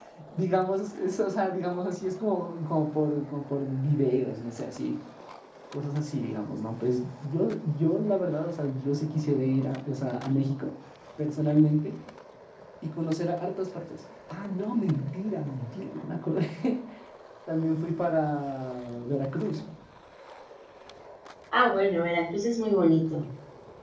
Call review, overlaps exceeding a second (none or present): none